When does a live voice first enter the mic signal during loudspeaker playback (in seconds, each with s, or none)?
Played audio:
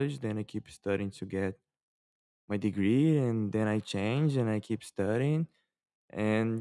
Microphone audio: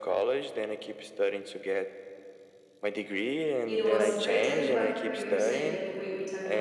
3.6 s